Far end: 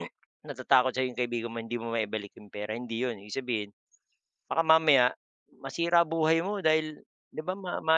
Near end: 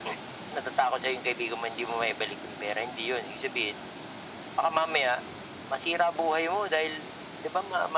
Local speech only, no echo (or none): none